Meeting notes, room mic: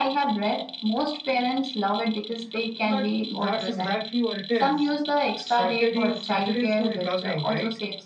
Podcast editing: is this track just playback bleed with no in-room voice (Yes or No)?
No